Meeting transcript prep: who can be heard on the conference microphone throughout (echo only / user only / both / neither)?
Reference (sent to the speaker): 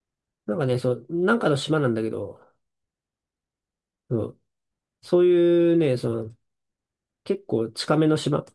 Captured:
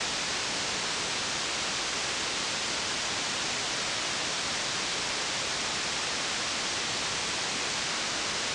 neither